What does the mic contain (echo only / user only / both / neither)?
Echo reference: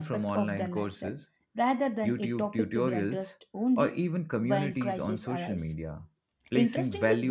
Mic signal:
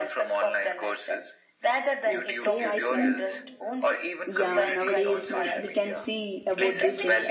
both